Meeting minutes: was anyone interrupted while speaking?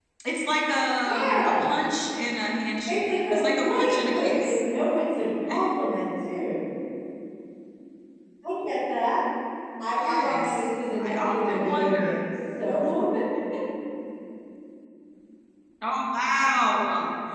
Yes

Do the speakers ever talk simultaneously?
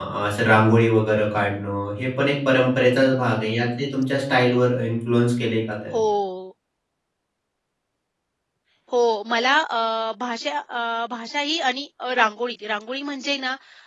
No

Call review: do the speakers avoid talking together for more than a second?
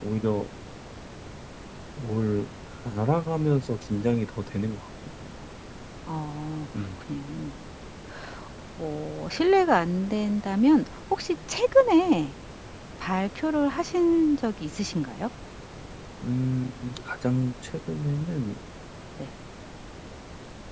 Yes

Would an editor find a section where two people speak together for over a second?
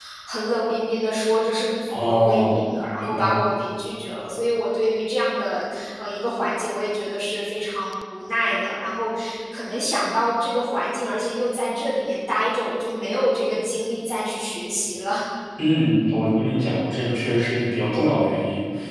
Yes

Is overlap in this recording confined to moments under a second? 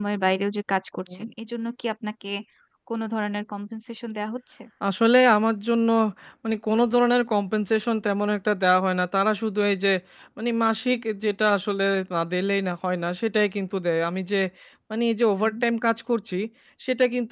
Yes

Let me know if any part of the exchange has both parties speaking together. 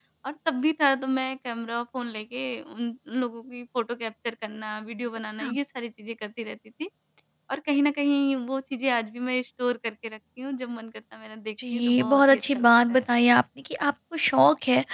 Yes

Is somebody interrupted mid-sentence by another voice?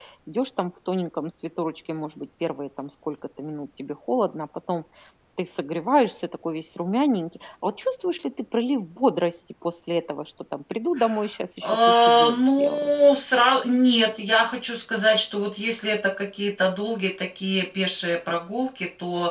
Yes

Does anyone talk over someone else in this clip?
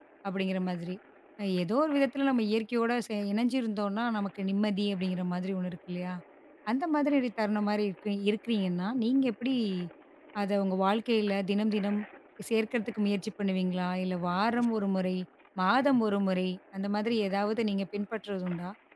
No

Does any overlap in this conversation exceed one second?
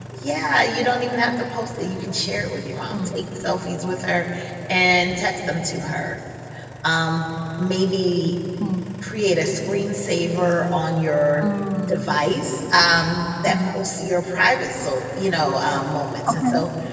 No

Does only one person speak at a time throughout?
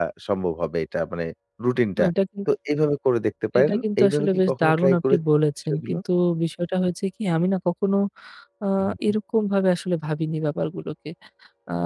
No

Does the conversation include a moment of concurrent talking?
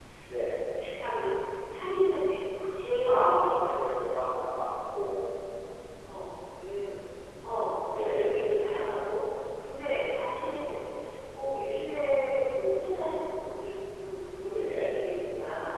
Yes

